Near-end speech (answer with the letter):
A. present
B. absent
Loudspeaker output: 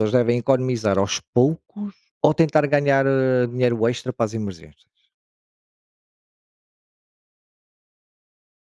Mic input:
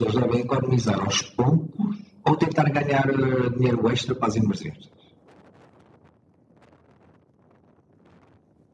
B